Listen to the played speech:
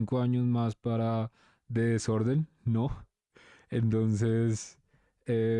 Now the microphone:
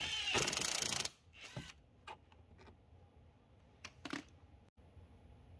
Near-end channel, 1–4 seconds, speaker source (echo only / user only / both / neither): neither